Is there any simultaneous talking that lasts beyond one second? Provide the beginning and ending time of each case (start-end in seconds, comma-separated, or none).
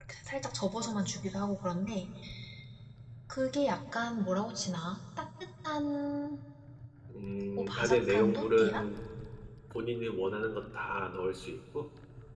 7.6-8.8